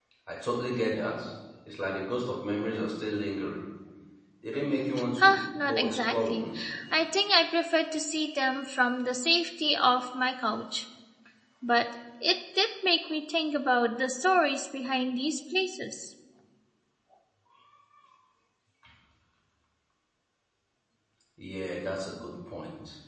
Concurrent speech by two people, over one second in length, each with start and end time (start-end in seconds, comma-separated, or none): 5.2-6.5